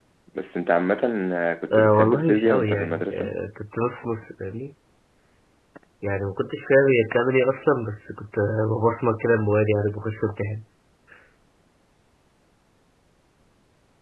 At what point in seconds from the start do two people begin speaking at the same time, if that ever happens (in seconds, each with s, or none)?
1.7 s